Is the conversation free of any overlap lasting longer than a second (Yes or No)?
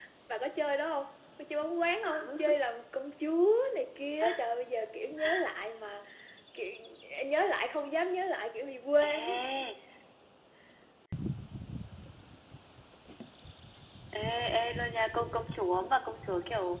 Yes